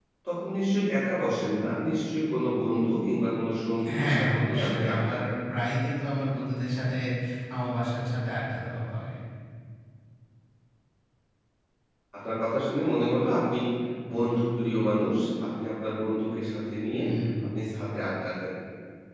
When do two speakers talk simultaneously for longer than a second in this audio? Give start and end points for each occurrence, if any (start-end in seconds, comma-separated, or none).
4.0-5.4